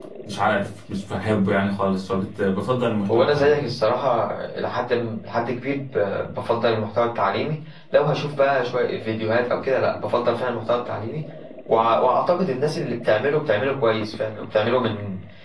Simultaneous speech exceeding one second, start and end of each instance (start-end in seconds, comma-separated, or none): none